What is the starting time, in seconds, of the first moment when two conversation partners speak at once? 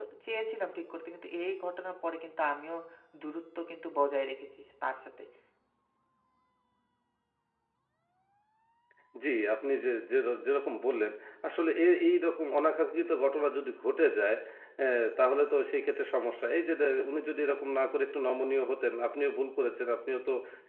none

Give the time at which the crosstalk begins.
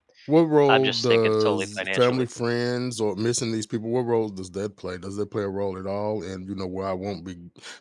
1 s

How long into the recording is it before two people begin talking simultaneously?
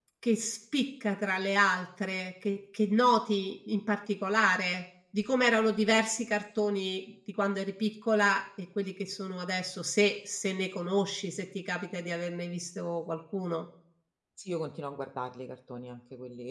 none

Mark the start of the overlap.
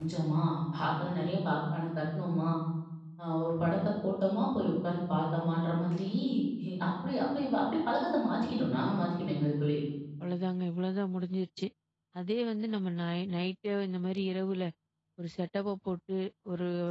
none

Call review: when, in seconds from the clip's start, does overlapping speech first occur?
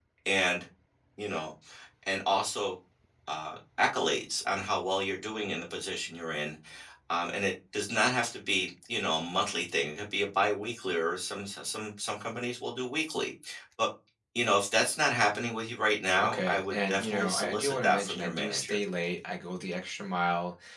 16 s

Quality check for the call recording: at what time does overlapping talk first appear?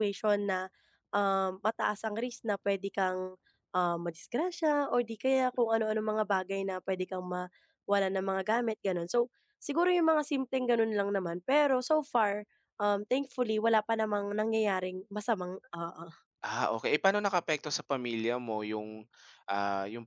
none

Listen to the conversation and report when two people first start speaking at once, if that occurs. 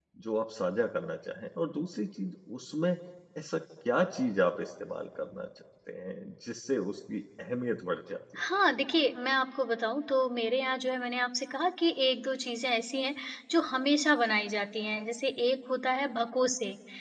none

